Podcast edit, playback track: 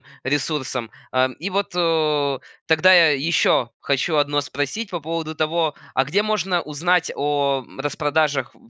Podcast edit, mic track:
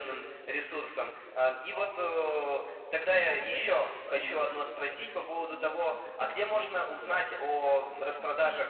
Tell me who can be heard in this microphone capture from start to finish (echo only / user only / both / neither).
both